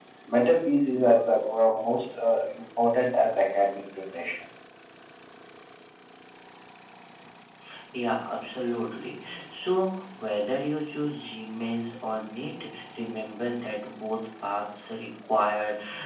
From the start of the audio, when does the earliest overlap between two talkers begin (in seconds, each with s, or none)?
none